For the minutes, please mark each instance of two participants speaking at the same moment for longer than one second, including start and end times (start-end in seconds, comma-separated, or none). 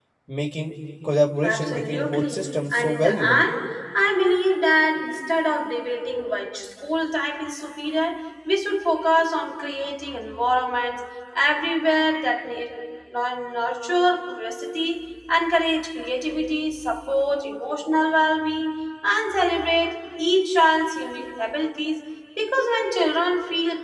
1.4-3.4